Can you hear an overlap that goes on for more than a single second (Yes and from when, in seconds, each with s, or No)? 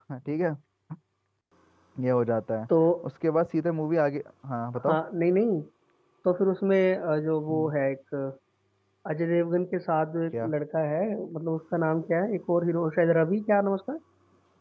No